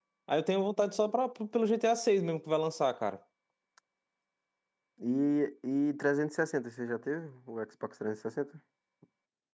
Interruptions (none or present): none